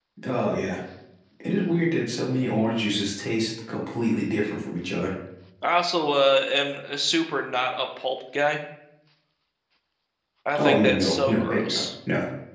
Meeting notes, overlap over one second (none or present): present